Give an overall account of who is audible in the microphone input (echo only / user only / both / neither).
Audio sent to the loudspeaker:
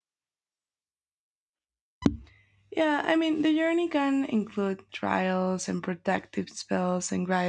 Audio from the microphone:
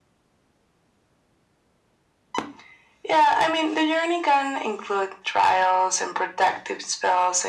echo only